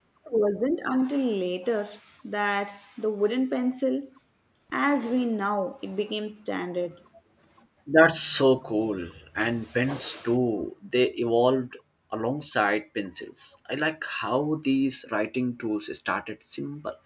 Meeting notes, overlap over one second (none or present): none